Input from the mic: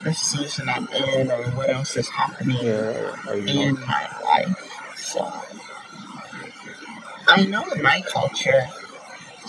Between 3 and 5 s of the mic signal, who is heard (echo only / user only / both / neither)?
both